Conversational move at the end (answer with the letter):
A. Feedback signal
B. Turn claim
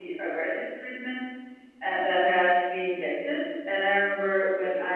A